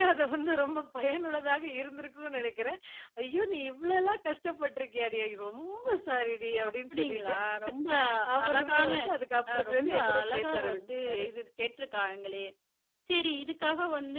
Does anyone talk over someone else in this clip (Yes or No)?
Yes